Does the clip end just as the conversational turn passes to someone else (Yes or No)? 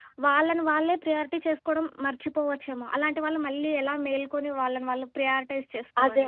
Yes